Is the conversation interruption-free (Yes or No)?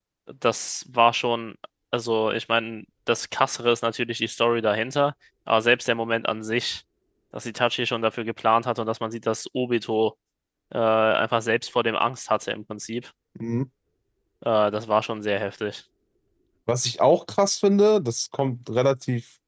Yes